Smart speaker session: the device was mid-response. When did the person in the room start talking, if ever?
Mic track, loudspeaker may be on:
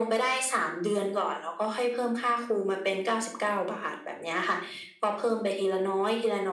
none

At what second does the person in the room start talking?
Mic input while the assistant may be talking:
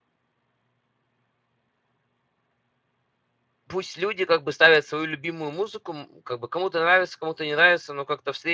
3.7 s

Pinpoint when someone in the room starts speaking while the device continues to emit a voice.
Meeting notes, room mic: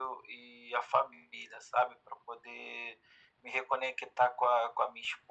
none

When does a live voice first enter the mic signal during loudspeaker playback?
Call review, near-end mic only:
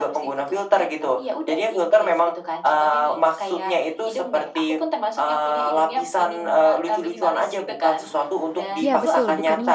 8.8 s

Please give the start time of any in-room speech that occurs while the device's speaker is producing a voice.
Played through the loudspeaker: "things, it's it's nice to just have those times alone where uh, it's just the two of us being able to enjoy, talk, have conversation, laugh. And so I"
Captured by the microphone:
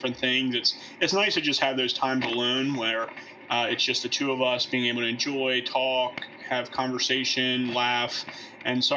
none

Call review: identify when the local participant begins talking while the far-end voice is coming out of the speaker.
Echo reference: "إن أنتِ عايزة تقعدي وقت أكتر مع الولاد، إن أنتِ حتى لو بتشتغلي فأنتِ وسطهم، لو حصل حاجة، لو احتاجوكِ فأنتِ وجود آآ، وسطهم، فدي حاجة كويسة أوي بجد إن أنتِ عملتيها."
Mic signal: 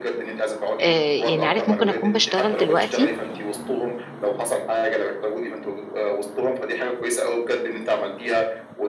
0.8 s

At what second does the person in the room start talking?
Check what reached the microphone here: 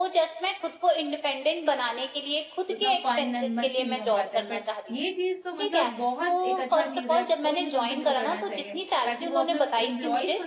2.7 s

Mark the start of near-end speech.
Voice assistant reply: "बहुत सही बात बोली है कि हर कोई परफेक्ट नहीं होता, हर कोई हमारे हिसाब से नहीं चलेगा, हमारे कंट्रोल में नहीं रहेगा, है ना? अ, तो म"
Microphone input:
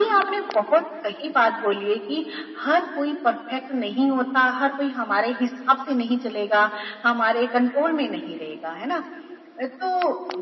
none

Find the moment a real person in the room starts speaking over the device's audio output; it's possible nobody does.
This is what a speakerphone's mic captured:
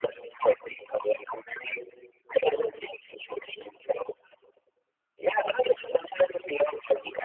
none

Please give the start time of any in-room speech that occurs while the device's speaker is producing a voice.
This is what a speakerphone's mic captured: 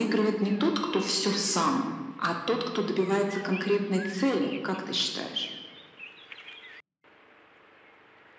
none

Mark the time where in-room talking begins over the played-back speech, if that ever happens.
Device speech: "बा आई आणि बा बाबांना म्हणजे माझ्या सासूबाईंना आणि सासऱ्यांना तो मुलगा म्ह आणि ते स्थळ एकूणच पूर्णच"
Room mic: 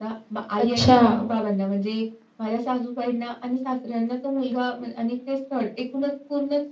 0.6 s

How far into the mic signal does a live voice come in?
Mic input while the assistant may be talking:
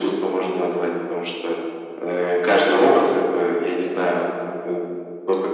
none

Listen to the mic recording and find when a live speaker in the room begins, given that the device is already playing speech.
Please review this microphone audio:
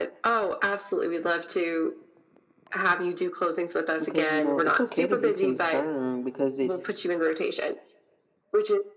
4.0 s

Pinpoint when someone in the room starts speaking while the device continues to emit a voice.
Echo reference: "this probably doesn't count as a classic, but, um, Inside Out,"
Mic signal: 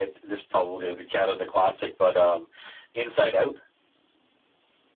none

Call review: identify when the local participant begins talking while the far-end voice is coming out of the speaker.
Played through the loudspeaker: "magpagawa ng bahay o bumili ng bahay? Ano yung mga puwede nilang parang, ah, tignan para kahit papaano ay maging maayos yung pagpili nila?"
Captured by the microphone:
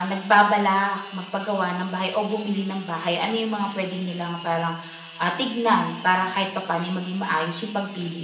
none

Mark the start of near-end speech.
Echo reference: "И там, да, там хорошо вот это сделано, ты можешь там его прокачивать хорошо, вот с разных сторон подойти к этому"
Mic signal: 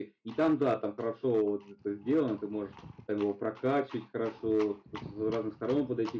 none

